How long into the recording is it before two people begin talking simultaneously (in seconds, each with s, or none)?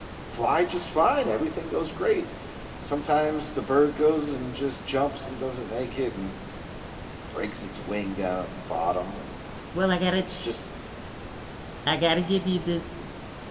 none